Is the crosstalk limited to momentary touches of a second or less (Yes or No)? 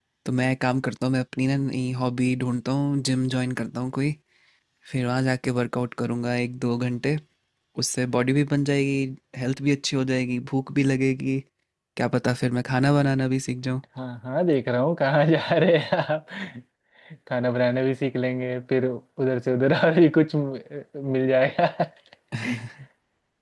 Yes